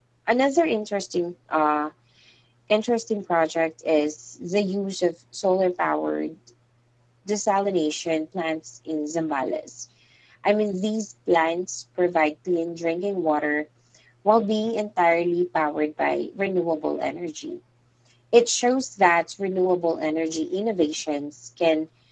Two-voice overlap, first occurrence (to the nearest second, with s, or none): none